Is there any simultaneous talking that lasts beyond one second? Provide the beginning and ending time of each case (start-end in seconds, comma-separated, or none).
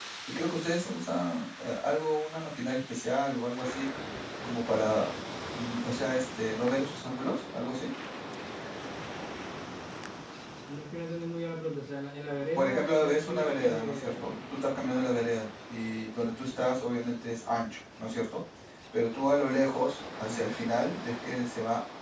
12.6-14.2